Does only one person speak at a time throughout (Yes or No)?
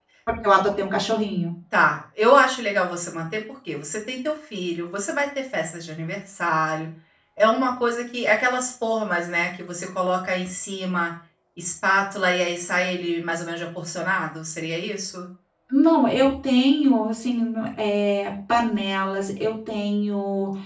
Yes